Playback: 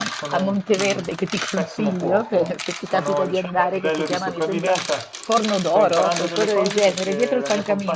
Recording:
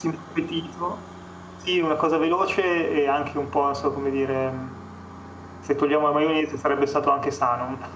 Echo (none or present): none